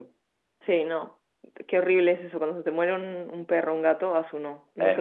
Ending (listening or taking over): taking over